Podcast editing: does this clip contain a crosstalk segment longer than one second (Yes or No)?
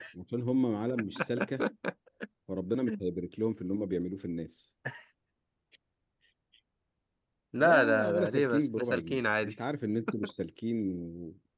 Yes